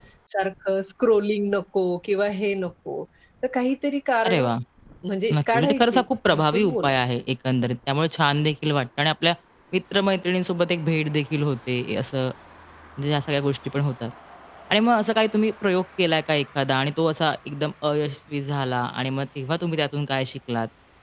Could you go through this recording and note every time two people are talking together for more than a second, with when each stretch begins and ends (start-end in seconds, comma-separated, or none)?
5.3-7.0